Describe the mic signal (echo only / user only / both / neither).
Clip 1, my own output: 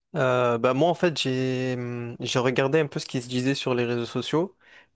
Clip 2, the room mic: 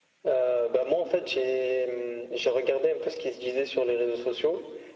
echo only